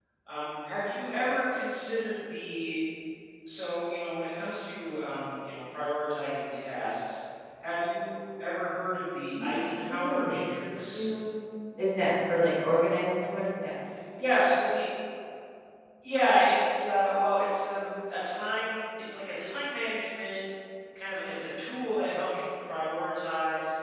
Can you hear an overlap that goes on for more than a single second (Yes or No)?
Yes